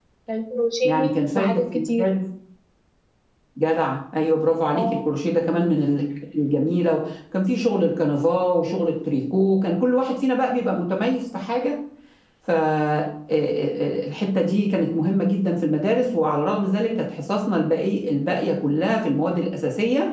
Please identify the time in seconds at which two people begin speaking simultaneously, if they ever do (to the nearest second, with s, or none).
1 s